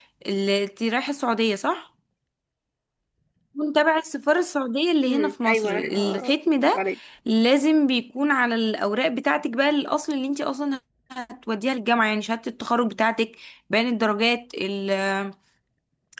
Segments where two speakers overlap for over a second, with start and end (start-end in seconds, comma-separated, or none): 5.0-6.4